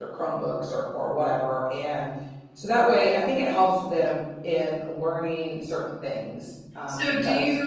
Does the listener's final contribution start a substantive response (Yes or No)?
Yes